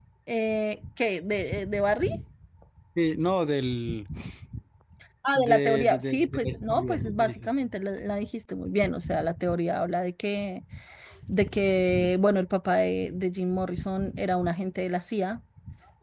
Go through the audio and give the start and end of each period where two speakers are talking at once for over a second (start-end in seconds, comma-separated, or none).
5.3-7.7